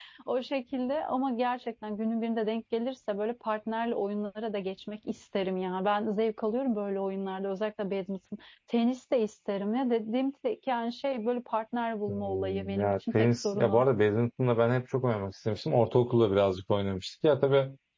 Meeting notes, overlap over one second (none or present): present